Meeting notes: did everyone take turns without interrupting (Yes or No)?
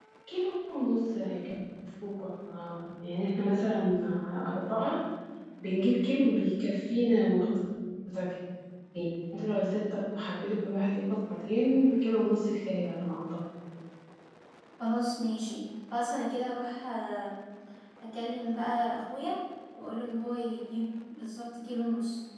Yes